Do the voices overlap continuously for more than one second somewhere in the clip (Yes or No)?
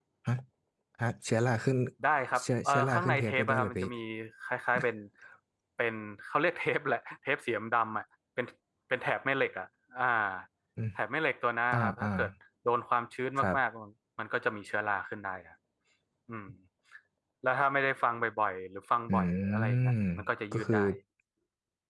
Yes